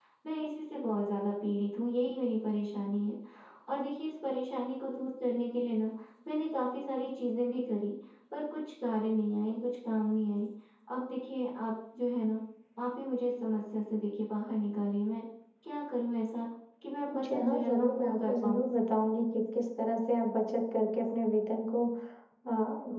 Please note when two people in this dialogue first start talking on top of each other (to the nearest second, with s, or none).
17 s